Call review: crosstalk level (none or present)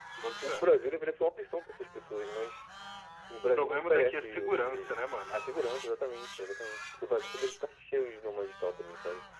present